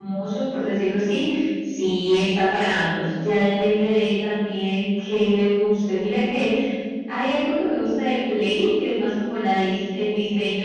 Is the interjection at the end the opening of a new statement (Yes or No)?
No